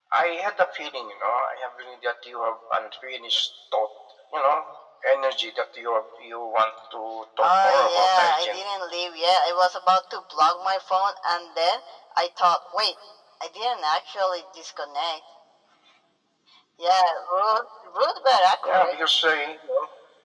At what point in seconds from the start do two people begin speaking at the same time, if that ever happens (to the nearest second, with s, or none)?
7 s